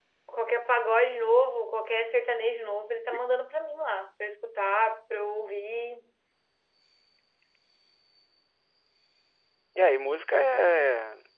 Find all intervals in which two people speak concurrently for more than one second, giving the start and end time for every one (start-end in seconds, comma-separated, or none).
none